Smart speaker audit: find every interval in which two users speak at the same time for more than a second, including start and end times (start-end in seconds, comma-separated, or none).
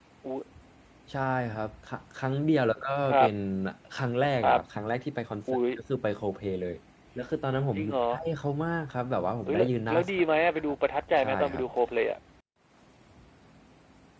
9.5-10.8